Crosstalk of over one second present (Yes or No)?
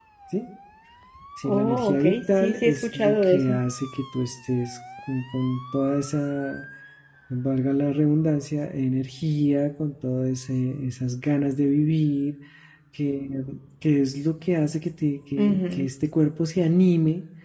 Yes